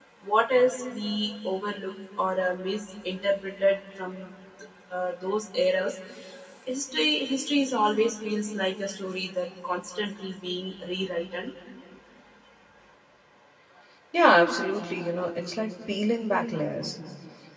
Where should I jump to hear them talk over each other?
none

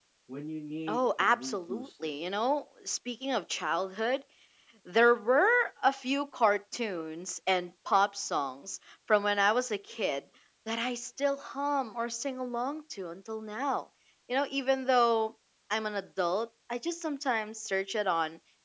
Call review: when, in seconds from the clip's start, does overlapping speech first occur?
0.9 s

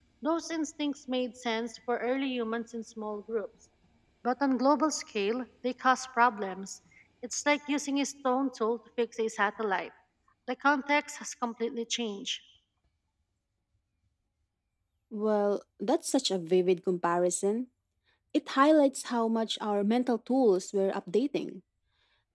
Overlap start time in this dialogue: none

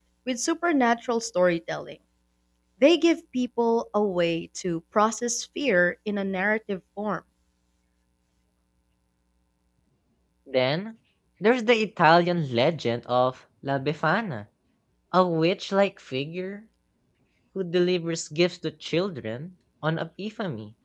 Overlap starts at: none

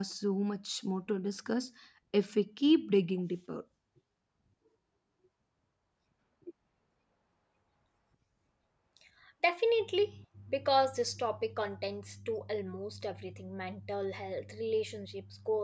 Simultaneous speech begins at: none

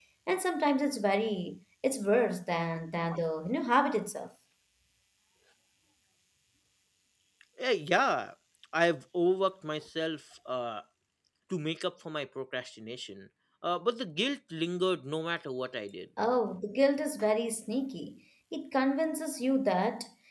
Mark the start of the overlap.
none

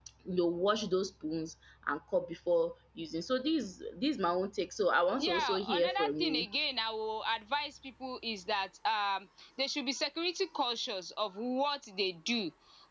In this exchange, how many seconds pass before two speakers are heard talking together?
5.2 s

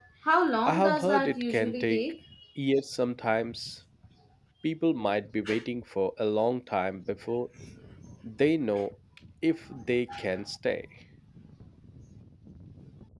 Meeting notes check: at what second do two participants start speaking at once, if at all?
0.6 s

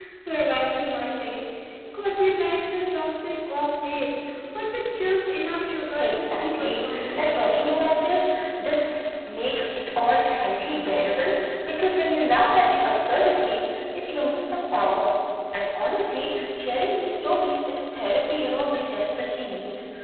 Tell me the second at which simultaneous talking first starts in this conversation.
5.8 s

